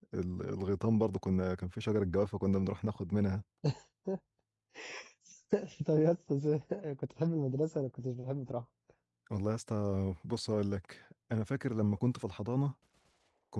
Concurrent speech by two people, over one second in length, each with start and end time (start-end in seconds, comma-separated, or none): none